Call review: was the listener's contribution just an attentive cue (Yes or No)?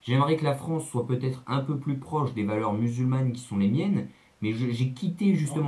Yes